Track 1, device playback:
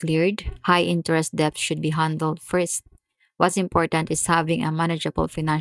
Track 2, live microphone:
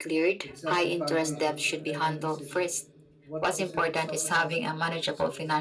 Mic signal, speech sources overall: both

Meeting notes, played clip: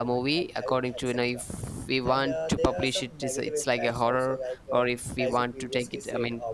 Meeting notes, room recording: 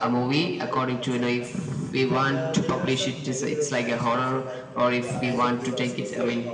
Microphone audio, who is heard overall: both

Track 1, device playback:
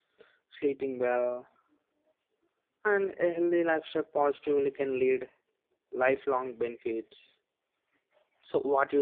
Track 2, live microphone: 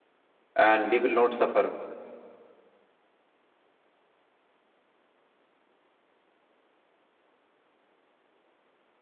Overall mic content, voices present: user only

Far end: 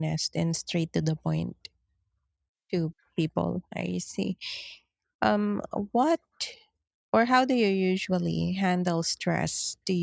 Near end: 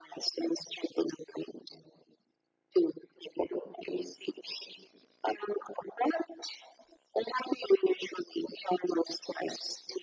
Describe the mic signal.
echo only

